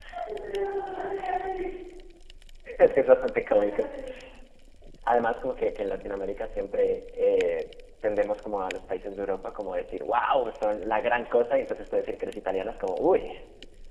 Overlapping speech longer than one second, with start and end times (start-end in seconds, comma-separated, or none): none